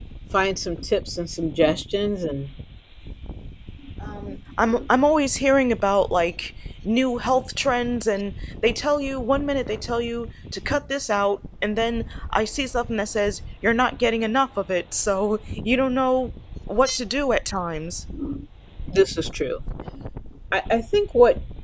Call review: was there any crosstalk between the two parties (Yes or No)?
No